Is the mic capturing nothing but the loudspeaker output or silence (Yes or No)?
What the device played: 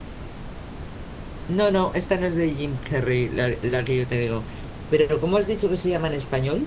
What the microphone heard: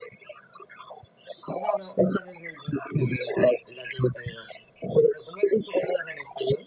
Yes